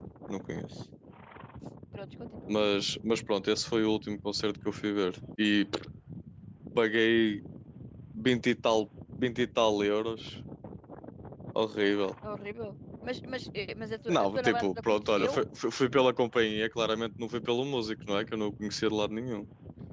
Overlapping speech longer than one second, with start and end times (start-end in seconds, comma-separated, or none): 14.1-15.3